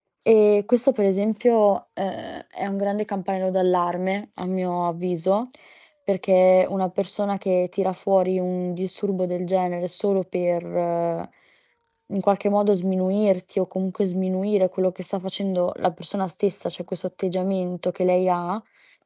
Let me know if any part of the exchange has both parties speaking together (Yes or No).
No